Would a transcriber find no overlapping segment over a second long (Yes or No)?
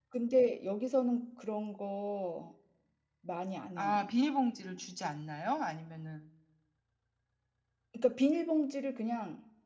Yes